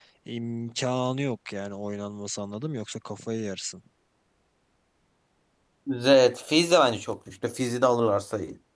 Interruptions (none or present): none